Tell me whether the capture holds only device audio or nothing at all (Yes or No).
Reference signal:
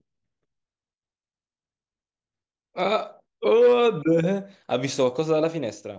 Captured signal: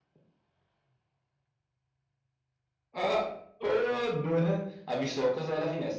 Yes